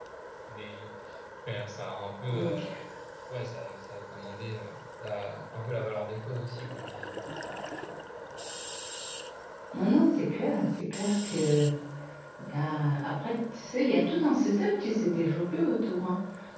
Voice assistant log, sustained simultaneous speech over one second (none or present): none